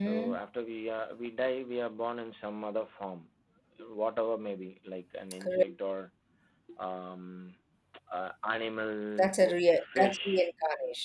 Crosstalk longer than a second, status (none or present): present